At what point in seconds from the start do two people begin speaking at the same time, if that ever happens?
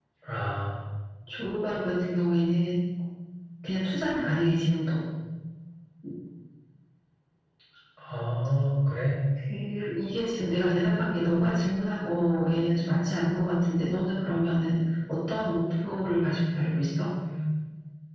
none

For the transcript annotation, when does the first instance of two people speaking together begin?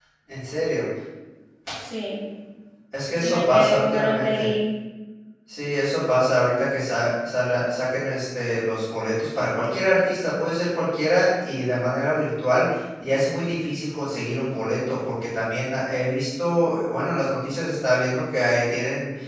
3.2 s

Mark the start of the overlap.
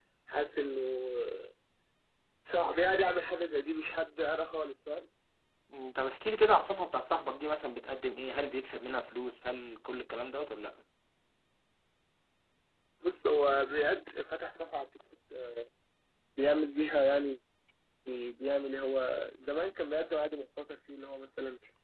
none

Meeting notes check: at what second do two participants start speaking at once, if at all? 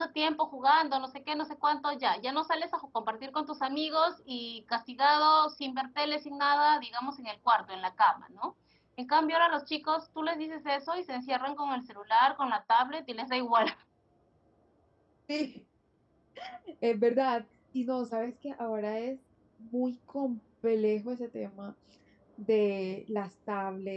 none

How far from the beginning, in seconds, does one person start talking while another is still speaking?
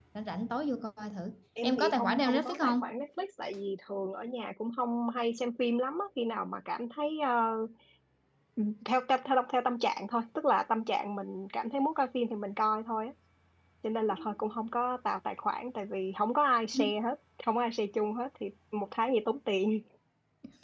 1.6 s

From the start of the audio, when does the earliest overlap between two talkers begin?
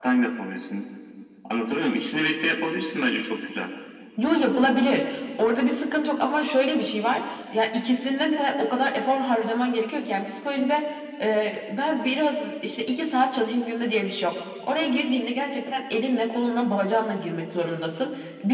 none

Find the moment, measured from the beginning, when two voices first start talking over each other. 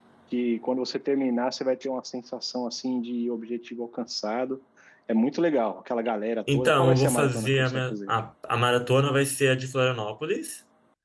6.5 s

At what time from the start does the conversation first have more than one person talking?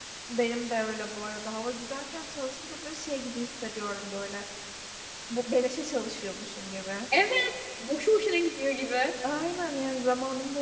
none

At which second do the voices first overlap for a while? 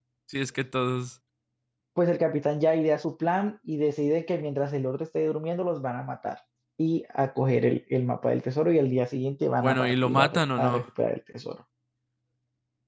9.6 s

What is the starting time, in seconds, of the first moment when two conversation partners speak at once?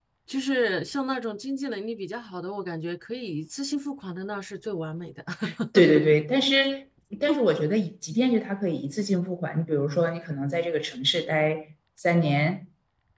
none

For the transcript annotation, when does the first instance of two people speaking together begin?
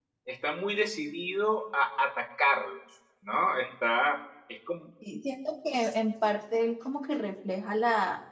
none

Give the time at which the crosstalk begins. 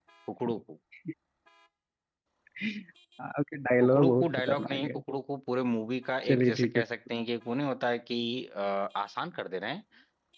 3.8 s

